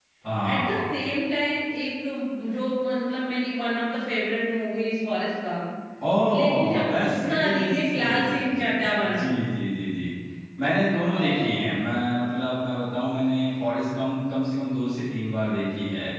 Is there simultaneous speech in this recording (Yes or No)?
Yes